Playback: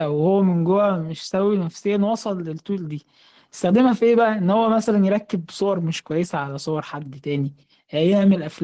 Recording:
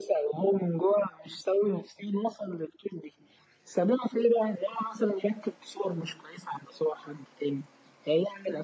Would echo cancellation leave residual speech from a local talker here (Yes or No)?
No